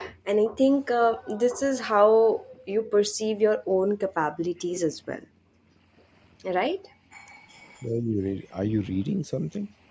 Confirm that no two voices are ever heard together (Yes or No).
Yes